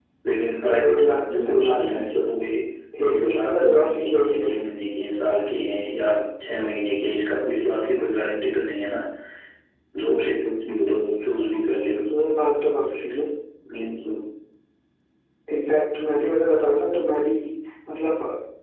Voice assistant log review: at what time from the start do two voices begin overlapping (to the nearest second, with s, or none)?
1 s